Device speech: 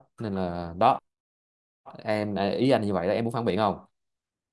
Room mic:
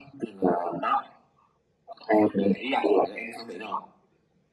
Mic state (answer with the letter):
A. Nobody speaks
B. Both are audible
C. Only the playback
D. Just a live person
C